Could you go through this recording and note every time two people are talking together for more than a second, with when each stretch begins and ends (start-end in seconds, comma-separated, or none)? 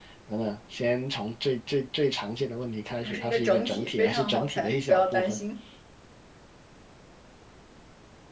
3.0-5.4